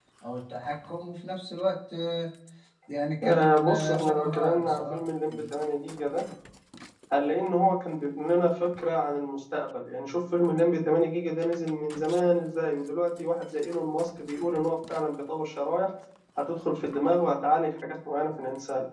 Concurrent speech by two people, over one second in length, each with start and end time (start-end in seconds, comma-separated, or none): 3.2-5.0